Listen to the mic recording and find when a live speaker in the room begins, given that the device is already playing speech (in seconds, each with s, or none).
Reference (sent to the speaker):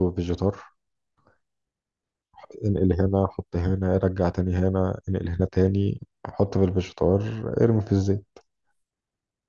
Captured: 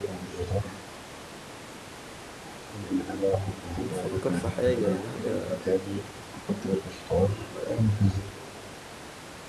3.8 s